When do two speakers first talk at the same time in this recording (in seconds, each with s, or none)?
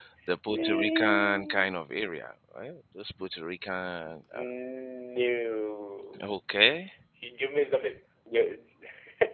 0.5 s